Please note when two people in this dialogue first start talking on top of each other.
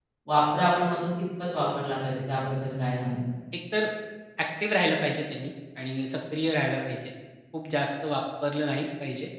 none

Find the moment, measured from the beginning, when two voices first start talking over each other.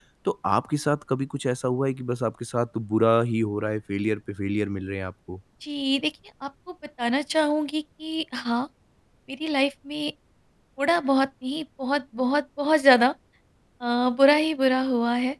none

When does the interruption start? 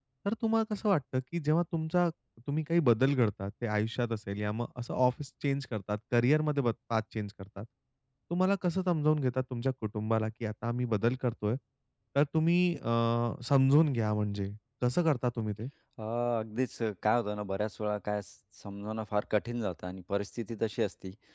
none

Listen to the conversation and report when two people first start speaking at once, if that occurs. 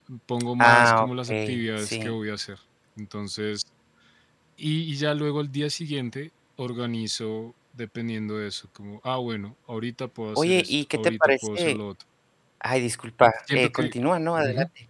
0.6 s

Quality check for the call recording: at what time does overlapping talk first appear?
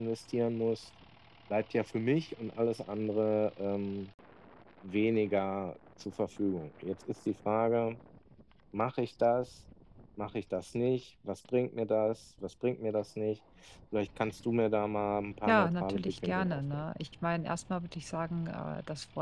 15.5 s

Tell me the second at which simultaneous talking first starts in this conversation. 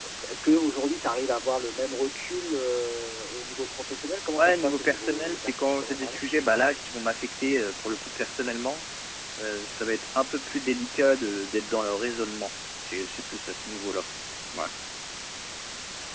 4.4 s

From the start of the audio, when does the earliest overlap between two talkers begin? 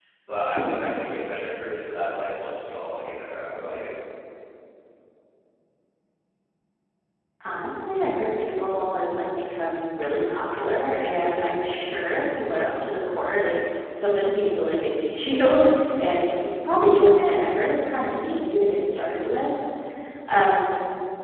none

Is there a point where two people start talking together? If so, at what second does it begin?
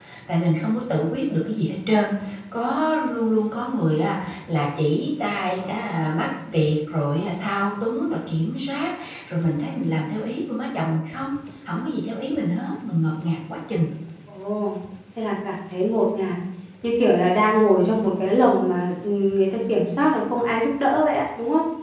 none

